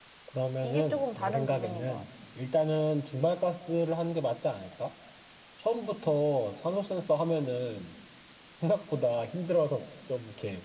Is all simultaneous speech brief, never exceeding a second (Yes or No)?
No